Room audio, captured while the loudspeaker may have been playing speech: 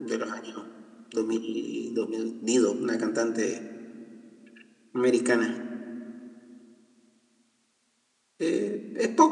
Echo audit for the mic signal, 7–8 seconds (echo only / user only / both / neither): neither